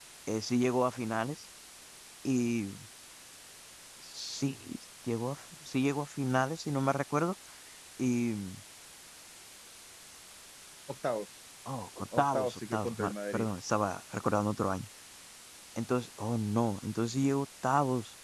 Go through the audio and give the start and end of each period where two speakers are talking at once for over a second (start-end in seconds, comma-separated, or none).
12.2-13.4